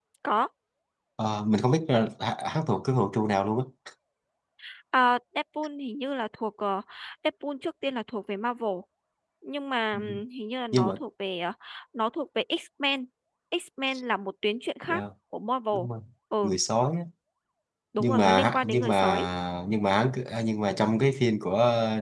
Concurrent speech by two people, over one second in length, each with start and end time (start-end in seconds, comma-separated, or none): 18.0-19.3